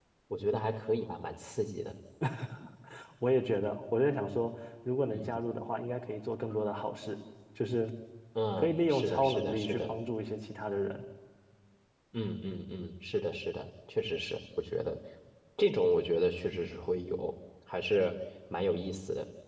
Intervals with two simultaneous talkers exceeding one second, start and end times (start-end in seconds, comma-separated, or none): 8.6-9.9